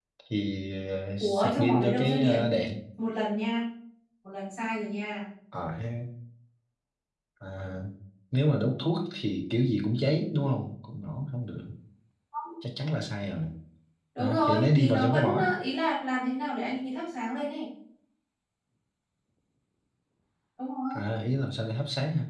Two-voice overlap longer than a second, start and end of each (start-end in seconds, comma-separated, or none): 1.2-2.5, 14.2-15.5